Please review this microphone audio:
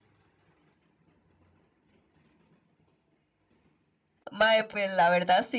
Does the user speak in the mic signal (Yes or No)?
Yes